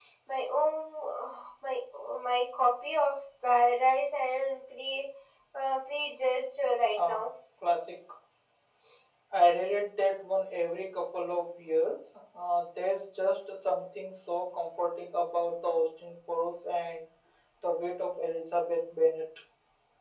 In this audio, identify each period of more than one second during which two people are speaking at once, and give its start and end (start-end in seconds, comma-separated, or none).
none